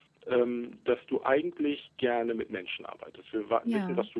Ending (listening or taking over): listening